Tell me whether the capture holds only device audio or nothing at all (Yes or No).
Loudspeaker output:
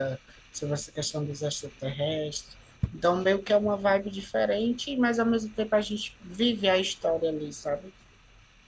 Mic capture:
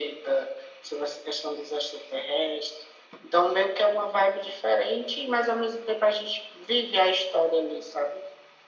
Yes